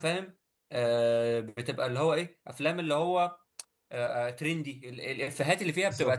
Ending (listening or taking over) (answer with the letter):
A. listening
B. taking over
A